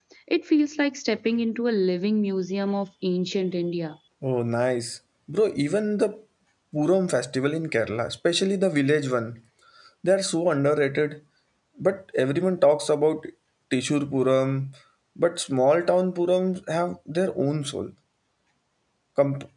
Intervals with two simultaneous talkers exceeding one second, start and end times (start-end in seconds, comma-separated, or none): none